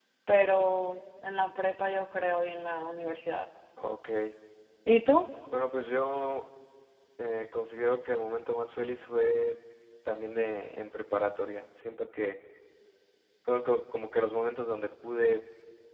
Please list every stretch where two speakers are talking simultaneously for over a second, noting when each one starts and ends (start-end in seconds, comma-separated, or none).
none